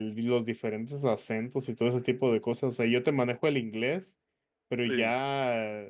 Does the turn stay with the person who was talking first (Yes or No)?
Yes